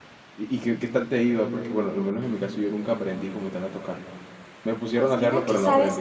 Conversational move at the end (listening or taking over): taking over